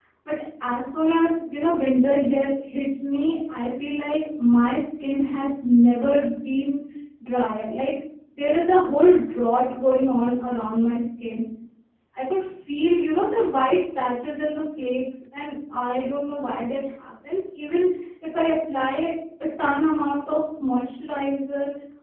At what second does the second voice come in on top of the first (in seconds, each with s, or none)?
none